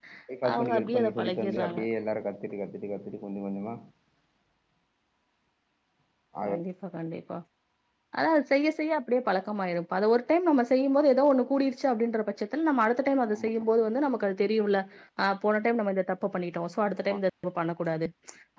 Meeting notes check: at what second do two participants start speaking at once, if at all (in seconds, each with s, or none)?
0.5 s